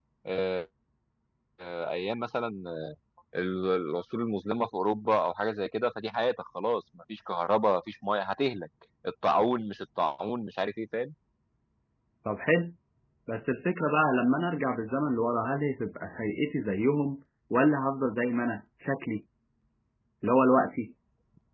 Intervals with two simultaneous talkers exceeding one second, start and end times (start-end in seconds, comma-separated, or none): none